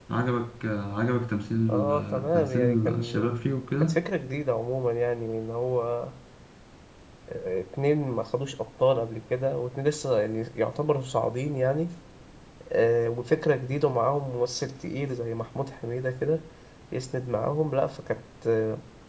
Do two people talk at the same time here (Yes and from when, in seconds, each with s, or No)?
Yes, from 1.7 s